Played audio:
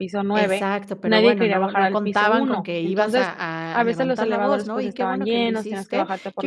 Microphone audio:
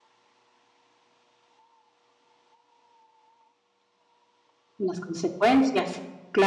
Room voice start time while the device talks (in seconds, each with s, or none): 4.8 s